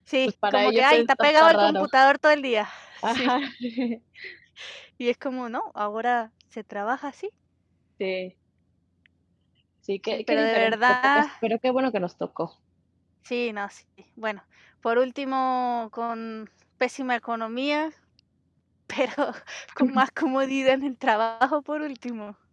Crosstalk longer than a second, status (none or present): present